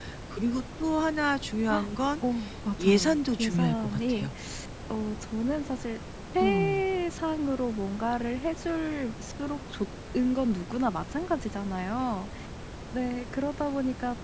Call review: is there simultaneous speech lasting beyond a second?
Yes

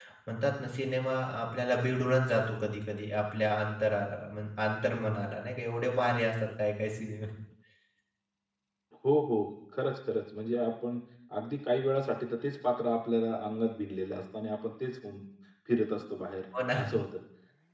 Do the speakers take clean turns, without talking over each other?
Yes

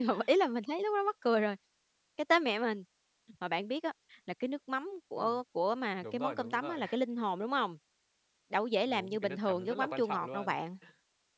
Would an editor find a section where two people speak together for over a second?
Yes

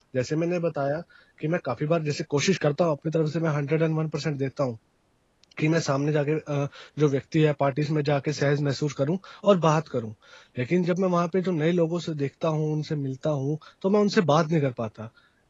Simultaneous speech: No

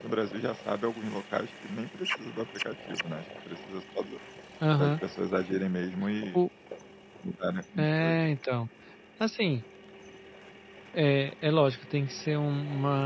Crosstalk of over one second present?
No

